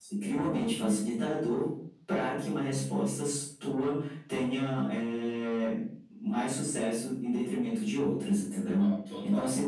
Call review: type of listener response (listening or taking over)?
listening